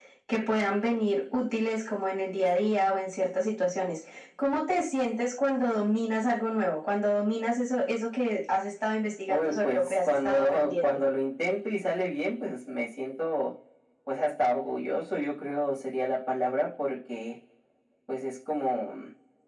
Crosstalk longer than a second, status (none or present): present